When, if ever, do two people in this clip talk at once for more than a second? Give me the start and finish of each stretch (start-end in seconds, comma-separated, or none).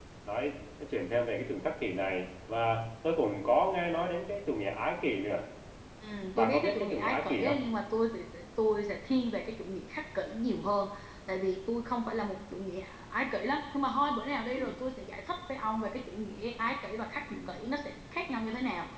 6.3-7.5